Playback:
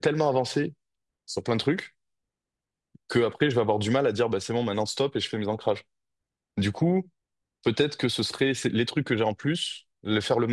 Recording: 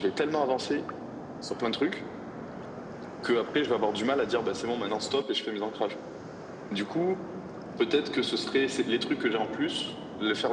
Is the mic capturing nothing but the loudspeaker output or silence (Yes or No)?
Yes